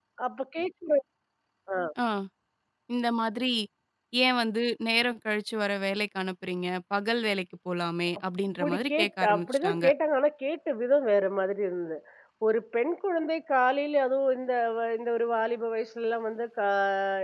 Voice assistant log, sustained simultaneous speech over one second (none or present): present